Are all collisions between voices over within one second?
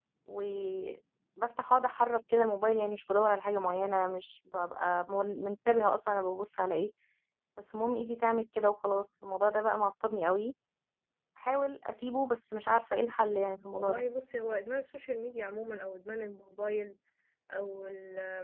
Yes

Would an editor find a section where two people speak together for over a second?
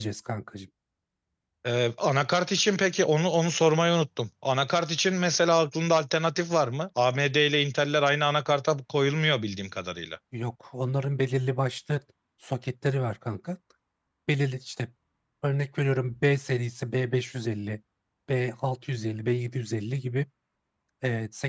No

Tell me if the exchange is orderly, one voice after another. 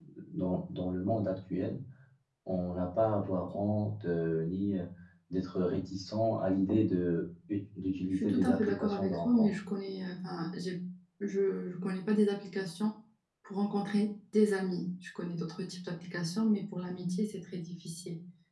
No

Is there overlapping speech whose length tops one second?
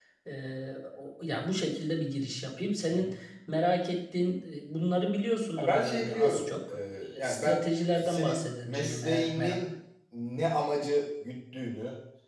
Yes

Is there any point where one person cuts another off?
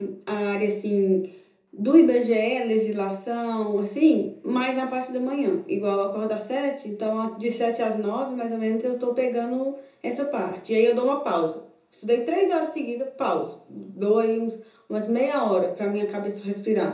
No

